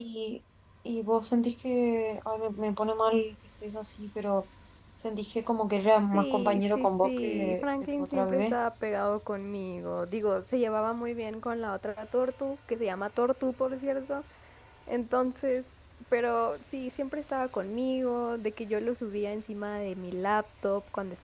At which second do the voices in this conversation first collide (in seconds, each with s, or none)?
6.1 s